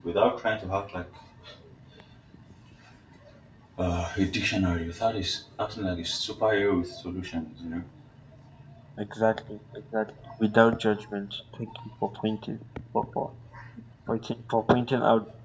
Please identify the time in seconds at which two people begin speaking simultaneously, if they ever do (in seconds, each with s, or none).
none